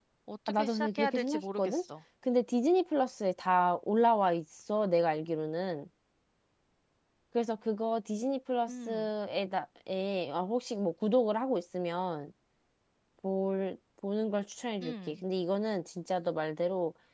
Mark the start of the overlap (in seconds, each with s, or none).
0.6 s